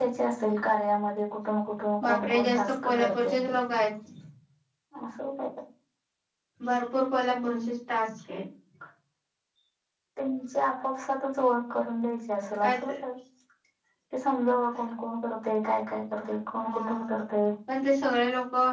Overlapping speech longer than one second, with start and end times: 2.0-3.4

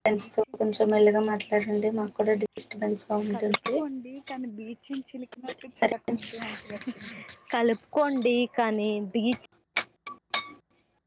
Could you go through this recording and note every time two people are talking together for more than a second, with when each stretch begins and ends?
none

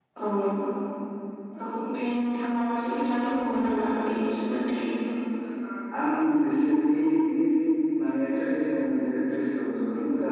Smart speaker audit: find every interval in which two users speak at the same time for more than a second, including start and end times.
none

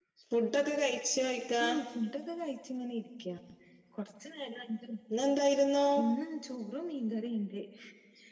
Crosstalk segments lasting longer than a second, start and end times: none

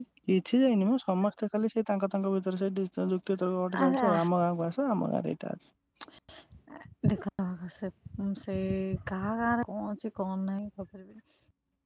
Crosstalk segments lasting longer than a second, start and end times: none

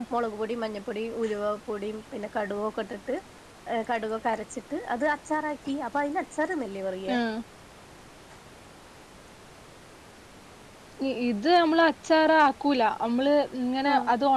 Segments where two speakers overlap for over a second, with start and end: none

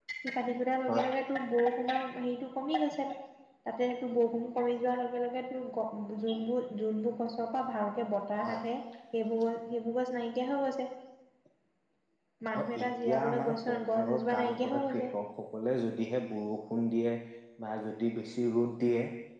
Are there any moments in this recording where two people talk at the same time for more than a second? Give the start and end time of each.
12.6-15.0

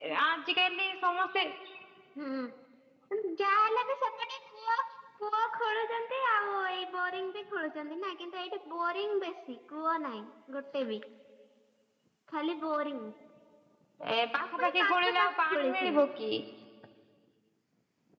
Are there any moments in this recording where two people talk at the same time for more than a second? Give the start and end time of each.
14.6-16.0

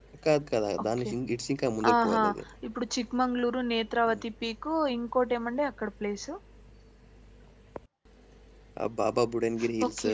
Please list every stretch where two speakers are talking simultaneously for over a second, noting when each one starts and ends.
none

